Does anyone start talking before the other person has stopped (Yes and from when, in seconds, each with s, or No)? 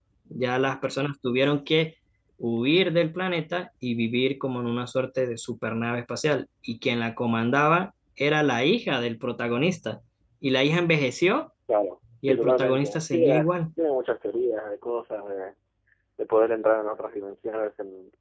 Yes, from 12.2 s